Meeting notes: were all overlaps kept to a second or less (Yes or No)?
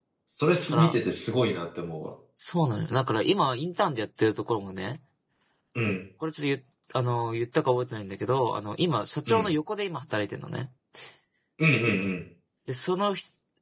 Yes